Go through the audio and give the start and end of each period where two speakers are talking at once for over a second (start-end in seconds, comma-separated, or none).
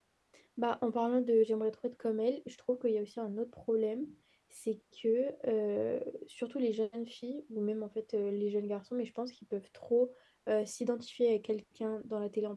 none